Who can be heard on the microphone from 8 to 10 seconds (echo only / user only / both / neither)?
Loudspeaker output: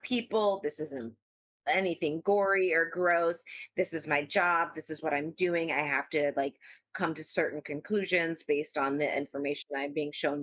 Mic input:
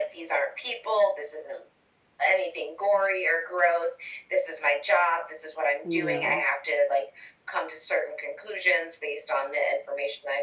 echo only